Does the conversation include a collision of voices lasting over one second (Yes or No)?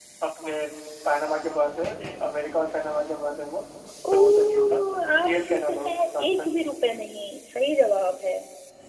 Yes